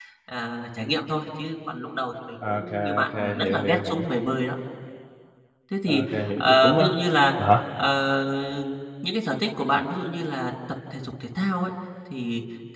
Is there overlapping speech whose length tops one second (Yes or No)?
Yes